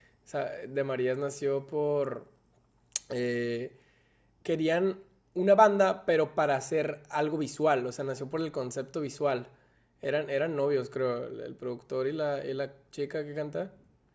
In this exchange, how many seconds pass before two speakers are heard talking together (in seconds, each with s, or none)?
none